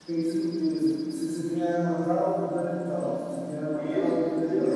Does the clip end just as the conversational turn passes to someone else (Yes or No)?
Yes